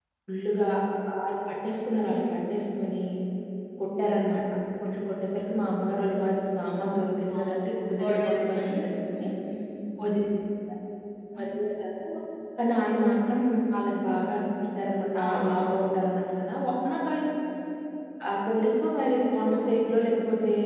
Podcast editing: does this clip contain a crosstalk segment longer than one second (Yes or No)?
Yes